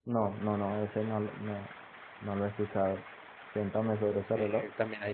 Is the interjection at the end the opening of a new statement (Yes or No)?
Yes